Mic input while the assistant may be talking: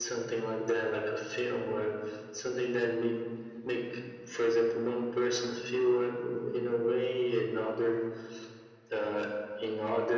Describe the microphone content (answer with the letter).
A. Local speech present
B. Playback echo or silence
B